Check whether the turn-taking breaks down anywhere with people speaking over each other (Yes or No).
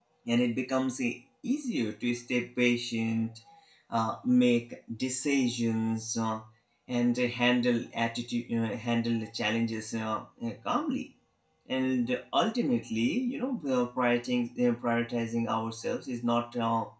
No